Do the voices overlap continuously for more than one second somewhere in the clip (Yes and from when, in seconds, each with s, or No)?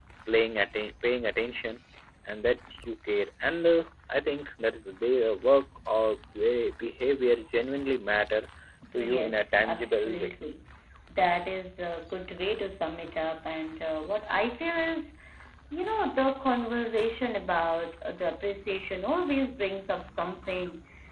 Yes, from 8.9 s